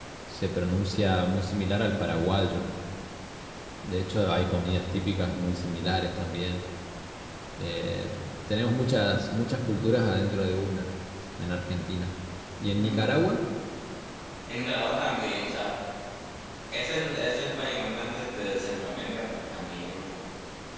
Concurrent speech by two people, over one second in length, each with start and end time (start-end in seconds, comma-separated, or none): none